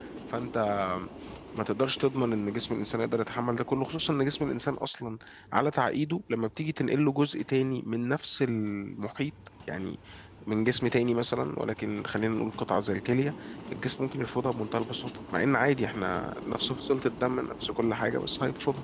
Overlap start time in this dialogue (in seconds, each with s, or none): none